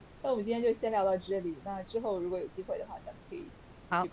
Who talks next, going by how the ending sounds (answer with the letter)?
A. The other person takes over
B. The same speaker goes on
A